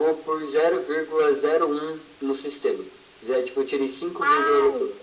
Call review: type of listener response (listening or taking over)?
listening